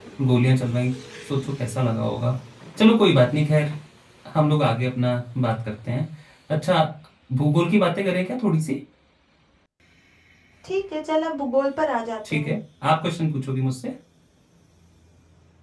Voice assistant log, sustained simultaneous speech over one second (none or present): none